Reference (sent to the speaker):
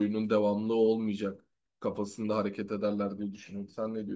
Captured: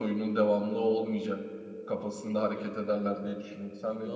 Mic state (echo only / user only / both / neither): both